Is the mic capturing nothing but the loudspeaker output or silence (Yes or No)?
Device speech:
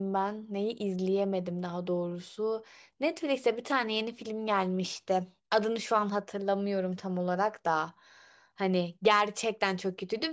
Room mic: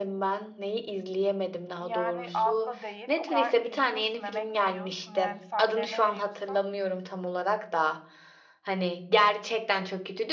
No